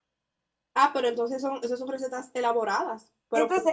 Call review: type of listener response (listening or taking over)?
taking over